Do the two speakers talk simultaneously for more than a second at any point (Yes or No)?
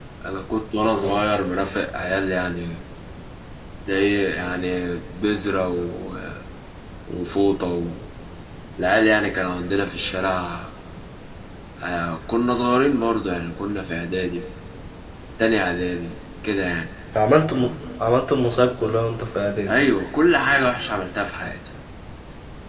No